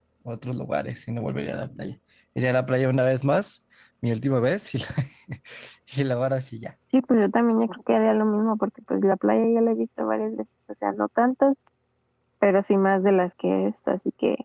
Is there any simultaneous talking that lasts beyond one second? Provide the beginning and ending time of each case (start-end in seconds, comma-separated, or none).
none